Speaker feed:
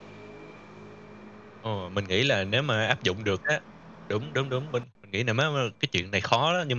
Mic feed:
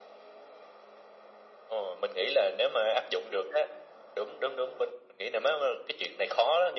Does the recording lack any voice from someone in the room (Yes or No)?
Yes